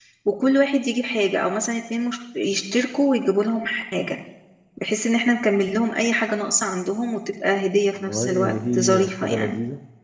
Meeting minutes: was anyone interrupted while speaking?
Yes, from 8.1 s

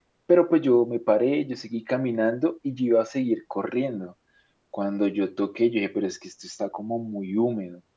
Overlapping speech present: No

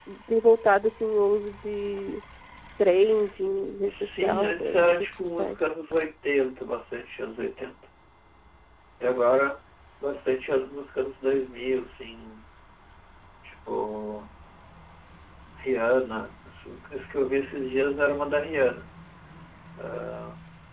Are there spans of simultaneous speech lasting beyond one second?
Yes, from 3.8 s

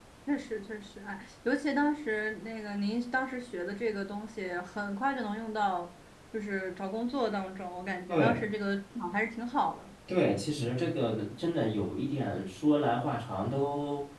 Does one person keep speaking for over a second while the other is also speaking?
No

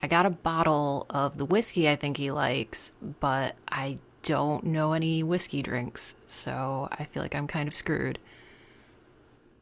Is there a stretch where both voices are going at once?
No

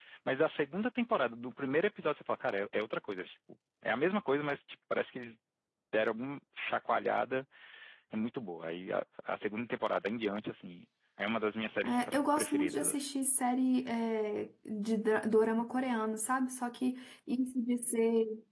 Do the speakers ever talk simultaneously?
Yes, from 11.8 s

